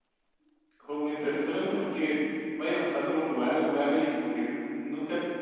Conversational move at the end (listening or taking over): listening